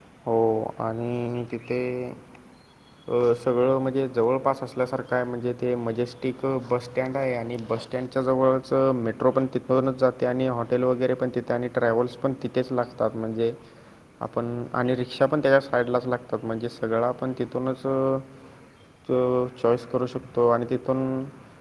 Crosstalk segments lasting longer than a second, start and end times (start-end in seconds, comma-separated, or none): none